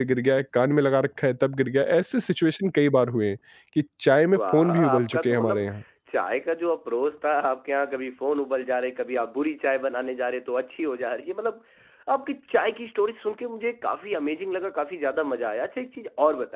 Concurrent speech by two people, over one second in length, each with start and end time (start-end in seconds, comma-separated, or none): 4.4-5.6